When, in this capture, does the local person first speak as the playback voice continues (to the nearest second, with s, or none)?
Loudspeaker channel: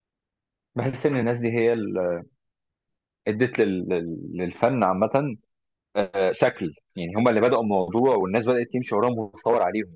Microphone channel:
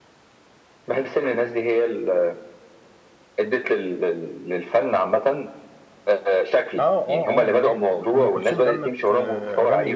7 s